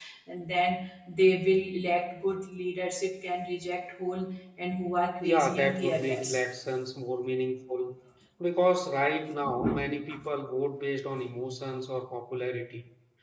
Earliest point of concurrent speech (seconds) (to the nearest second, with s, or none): 5 s